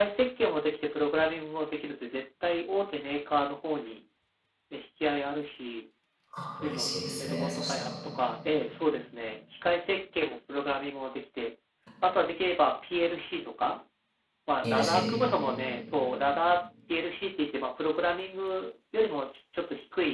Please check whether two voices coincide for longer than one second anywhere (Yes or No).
Yes